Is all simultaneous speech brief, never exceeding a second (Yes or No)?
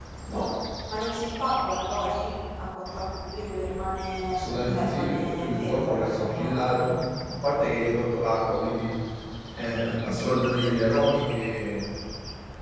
No